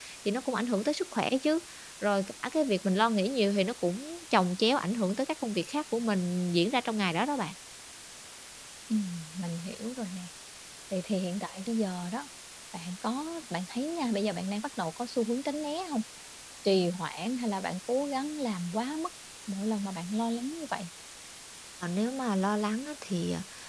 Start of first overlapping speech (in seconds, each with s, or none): none